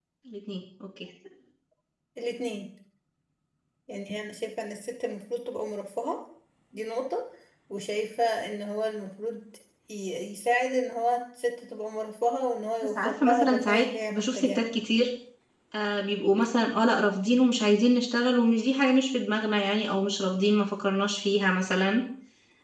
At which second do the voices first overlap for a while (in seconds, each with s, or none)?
12.8 s